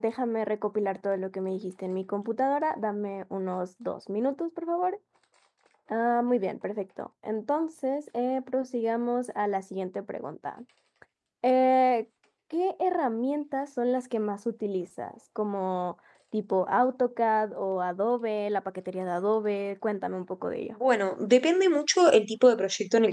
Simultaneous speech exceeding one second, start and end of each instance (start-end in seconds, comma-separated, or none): none